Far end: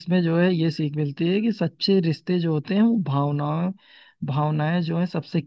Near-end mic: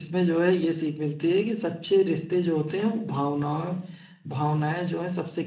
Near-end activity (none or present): none